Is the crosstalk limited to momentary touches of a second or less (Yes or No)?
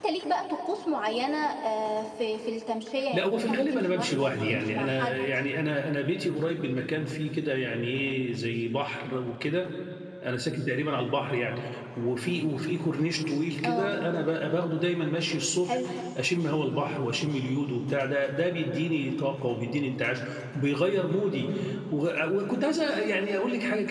No